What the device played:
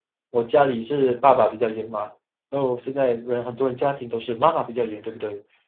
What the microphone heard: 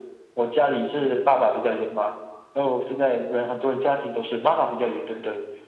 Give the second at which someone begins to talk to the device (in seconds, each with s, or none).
none